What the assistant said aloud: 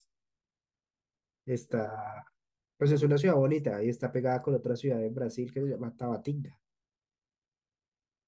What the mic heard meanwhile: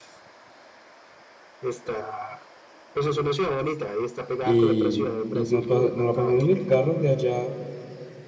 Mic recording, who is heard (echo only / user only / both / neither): both